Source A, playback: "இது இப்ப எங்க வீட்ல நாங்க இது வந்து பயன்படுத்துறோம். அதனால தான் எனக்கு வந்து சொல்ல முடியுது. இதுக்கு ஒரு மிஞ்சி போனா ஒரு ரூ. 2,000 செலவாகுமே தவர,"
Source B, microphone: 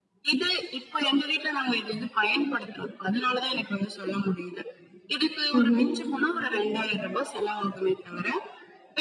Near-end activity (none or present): present